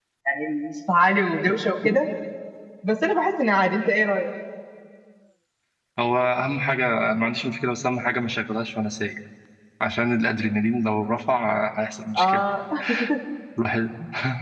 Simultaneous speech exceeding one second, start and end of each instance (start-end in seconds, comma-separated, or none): none